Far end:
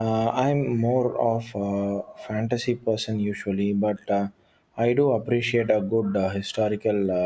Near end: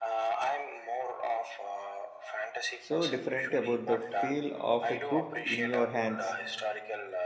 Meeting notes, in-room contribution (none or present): present